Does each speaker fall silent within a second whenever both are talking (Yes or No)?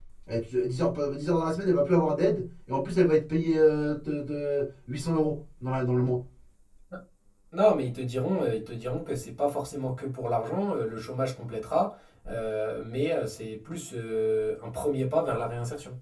Yes